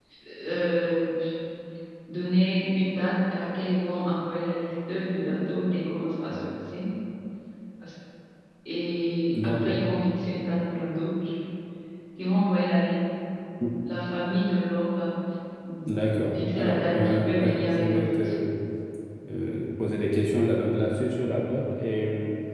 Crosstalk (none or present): present